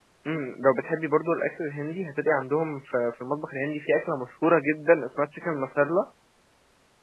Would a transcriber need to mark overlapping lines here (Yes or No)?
No